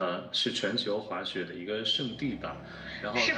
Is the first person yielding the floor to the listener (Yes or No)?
Yes